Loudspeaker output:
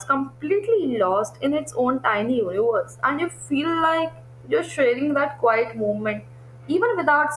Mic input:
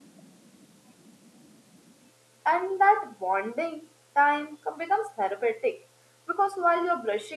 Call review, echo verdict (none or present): none